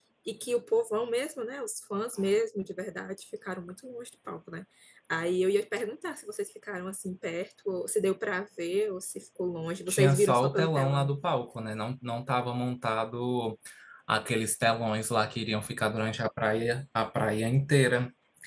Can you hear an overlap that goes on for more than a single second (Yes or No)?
Yes